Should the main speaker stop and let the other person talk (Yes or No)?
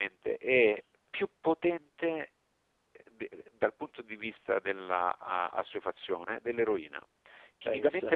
No